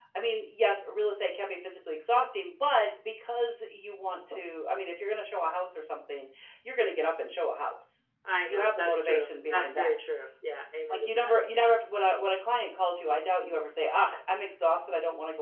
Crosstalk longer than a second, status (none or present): present